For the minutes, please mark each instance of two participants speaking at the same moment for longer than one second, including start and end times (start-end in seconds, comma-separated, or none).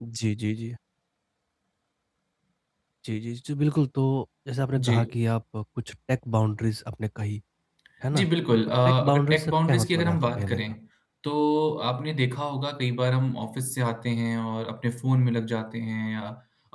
8.8-10.7